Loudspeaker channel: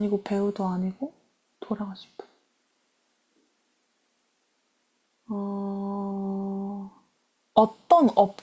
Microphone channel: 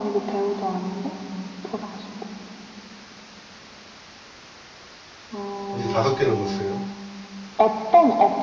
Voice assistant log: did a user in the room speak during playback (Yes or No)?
Yes